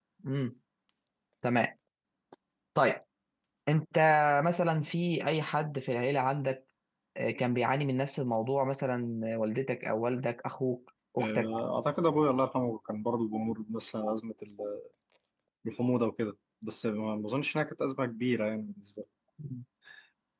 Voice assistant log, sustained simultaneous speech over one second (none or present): none